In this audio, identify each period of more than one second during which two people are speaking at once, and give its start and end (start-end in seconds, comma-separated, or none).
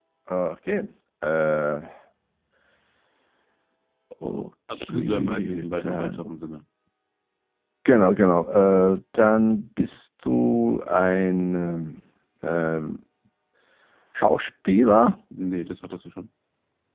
4.8-6.3